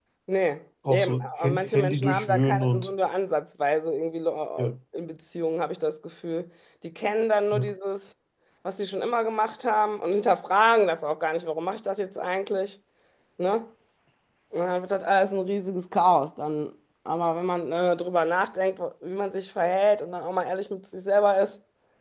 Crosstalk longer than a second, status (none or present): present